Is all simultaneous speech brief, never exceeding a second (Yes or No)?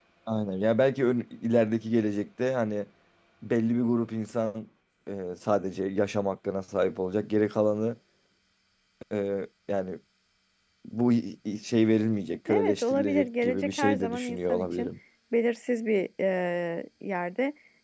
No